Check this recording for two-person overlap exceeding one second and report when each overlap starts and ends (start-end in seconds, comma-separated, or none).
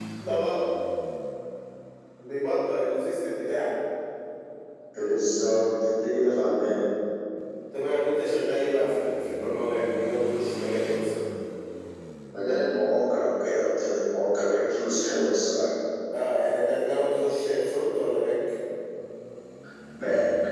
none